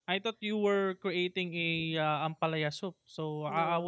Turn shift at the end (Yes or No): No